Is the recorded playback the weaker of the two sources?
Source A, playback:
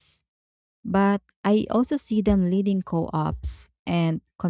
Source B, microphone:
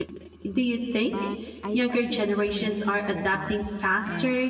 Yes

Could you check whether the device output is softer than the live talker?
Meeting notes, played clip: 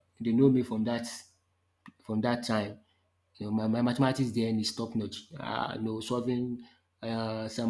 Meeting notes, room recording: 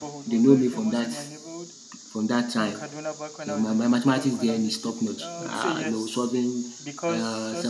No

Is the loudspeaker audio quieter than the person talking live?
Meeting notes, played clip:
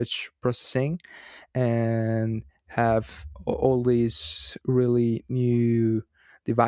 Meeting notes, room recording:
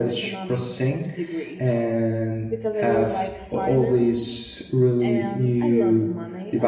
No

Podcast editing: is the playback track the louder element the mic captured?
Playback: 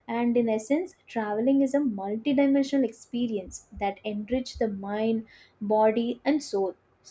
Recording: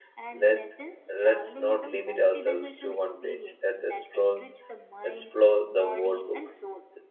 No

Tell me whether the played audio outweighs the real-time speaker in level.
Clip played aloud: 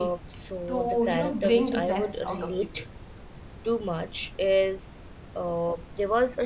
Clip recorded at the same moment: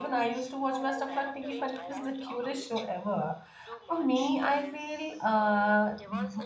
No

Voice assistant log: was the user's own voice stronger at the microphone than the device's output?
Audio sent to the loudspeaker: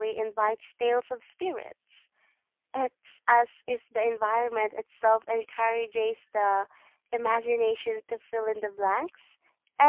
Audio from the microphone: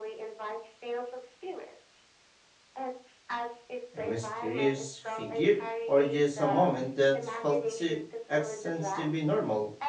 Yes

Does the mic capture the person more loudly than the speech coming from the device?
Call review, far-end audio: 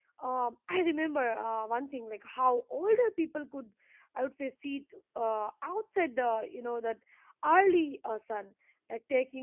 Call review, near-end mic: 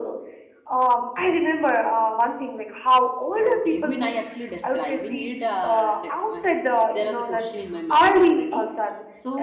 No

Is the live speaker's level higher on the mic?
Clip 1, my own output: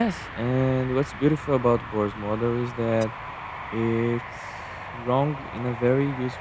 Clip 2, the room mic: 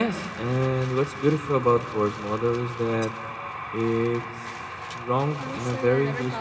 No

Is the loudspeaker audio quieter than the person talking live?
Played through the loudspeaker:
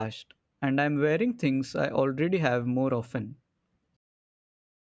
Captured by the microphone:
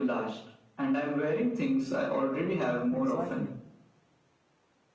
No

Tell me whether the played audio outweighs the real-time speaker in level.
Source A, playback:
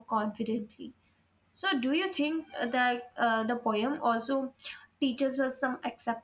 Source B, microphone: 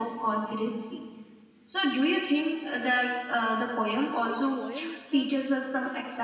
Yes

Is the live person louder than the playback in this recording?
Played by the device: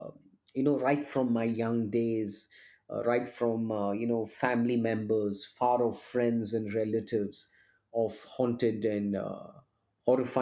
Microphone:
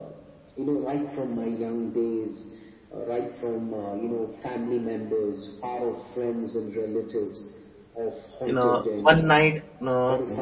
Yes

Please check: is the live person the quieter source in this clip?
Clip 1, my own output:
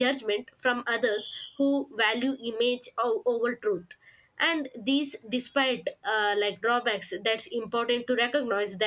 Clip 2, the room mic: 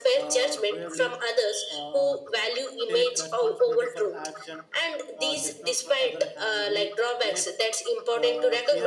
Yes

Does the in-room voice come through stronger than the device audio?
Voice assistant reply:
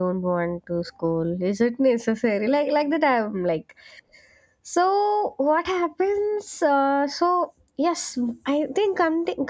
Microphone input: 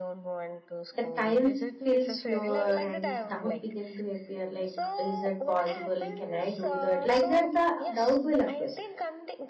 Yes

